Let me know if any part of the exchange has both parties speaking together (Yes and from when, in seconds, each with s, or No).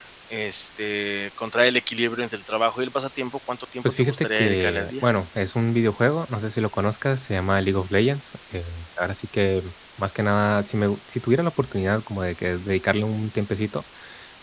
Yes, from 3.8 s